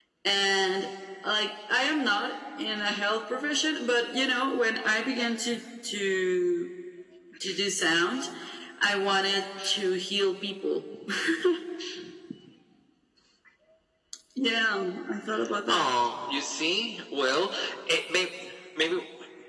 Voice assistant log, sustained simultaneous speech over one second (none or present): none